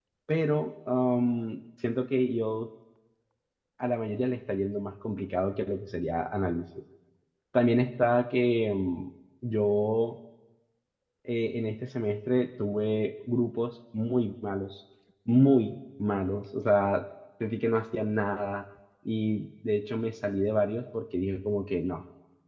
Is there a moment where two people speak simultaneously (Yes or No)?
No